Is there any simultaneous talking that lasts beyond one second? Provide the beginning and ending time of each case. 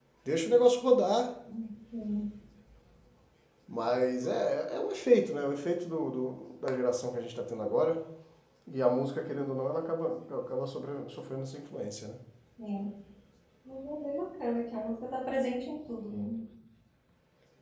none

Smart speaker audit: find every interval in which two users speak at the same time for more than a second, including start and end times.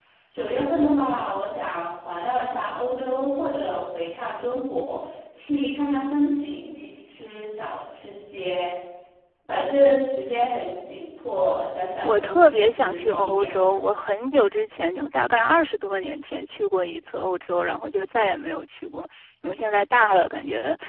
12.0-13.6

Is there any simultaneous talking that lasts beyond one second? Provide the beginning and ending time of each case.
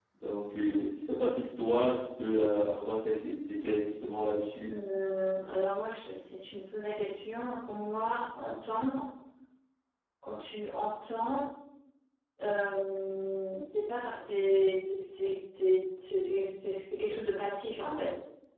none

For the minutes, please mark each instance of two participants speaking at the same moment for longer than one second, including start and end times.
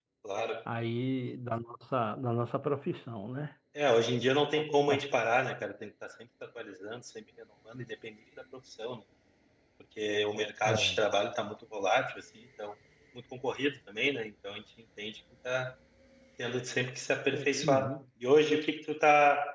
none

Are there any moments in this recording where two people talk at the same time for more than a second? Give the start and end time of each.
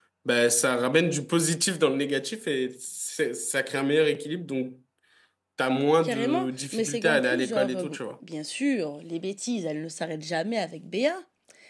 6.0-8.0

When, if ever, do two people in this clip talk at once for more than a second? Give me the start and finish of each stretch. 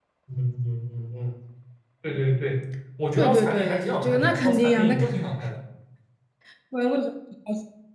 3.2-5.1

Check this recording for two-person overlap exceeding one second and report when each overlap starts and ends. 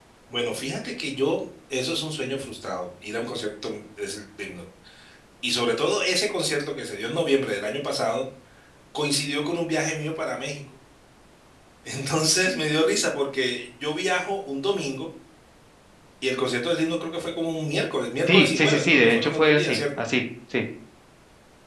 18.3-20.0

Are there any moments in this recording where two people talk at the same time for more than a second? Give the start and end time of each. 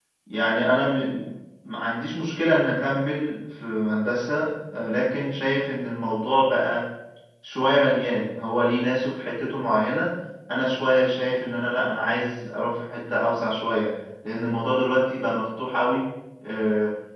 none

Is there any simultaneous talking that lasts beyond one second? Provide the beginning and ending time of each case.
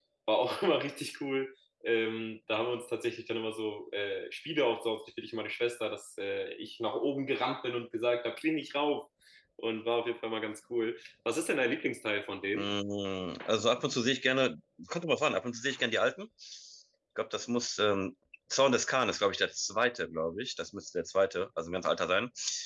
none

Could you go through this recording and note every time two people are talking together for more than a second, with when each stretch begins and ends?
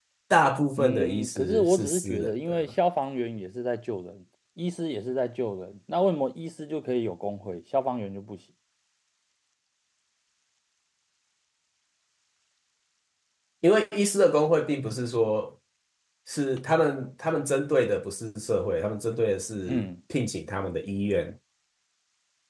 0.8-2.7

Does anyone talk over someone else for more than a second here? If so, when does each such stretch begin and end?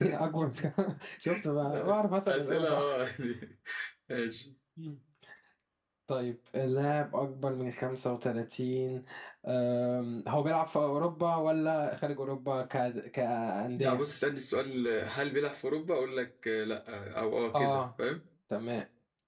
1.7-2.9

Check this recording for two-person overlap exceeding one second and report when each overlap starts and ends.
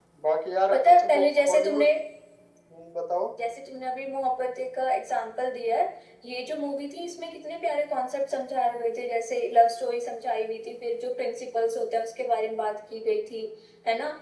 0.7-1.9

